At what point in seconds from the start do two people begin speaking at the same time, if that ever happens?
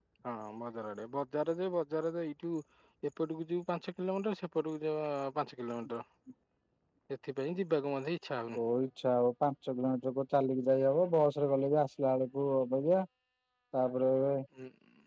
none

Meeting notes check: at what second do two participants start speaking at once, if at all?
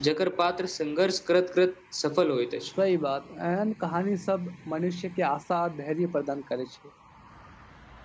none

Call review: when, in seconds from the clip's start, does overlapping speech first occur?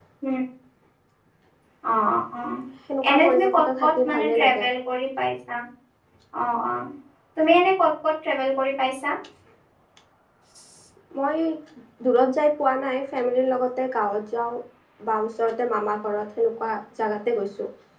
3.1 s

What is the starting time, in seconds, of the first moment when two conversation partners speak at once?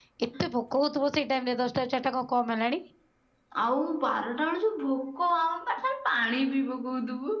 none

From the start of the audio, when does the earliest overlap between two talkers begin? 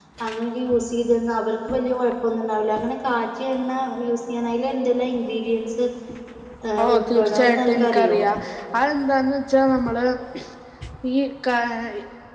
6.9 s

